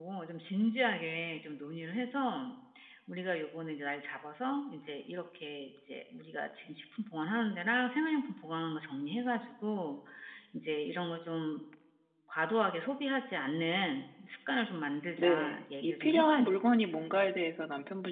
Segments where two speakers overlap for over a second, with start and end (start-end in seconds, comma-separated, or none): 15.2-16.7